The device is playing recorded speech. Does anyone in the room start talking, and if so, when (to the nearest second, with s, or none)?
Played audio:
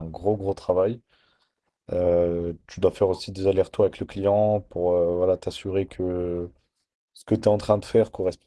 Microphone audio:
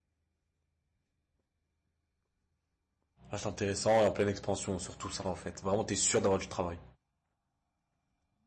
3 s